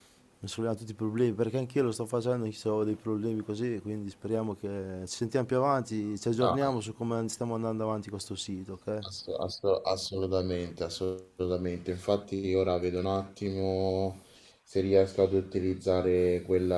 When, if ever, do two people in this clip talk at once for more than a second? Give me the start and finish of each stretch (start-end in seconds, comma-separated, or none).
none